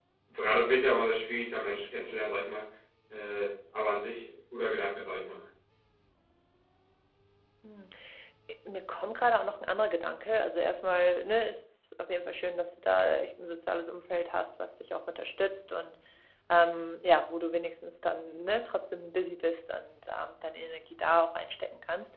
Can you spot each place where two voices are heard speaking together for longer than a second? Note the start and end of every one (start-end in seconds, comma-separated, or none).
none